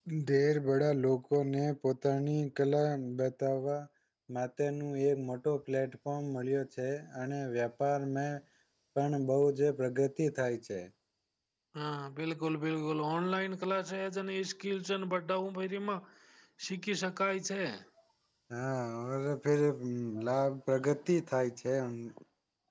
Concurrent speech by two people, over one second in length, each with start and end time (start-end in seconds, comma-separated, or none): none